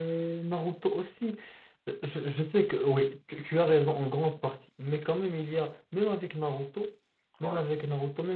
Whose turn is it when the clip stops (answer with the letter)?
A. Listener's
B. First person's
B